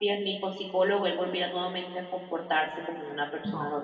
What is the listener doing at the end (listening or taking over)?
taking over